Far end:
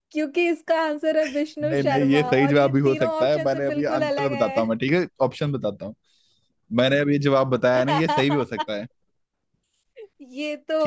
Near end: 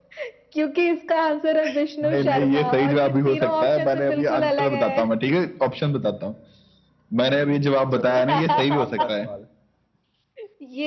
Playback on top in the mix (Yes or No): Yes